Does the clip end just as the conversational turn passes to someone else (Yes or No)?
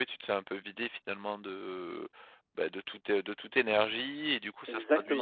No